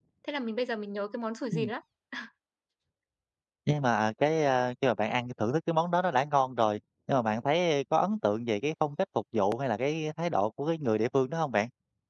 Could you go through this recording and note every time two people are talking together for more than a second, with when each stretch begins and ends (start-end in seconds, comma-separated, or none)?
none